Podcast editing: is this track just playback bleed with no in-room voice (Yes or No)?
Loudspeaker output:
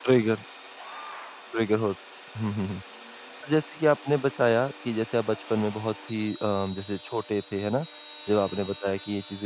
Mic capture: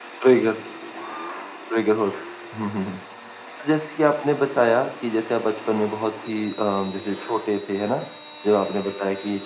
Yes